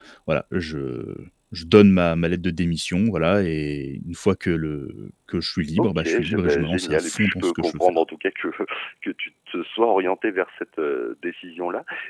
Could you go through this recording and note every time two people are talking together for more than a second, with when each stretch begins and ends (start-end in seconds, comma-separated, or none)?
5.8-7.8